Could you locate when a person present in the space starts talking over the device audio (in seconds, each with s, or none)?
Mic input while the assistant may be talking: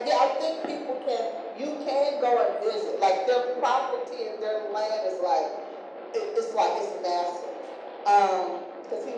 none